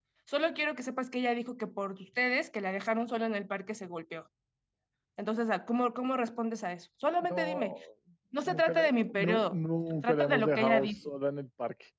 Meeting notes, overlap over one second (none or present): present